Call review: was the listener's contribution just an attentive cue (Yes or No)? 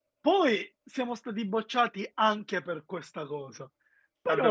No